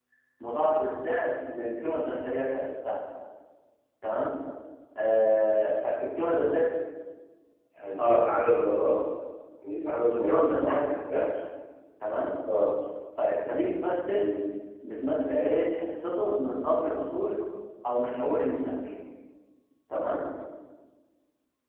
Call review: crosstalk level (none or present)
present